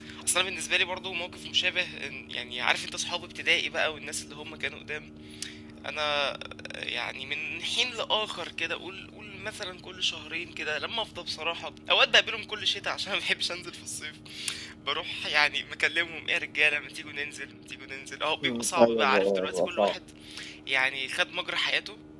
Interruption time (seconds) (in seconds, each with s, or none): 18.4 s